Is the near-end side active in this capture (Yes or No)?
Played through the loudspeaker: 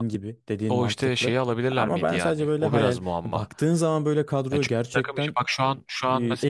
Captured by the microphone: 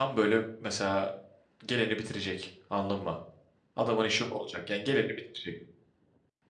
Yes